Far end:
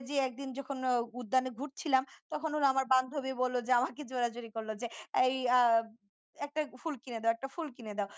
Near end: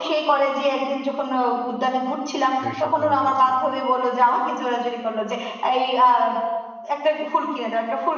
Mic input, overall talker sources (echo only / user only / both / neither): both